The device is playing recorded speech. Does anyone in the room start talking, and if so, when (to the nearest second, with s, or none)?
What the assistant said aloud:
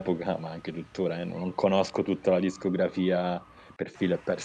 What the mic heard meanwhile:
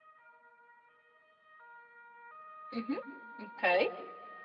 3 s